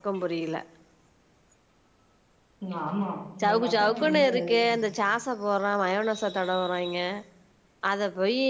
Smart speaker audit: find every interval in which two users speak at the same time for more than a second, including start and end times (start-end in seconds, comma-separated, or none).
3.4-4.8